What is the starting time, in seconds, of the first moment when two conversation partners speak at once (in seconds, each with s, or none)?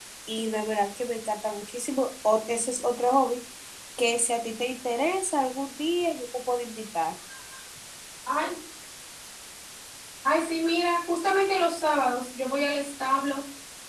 none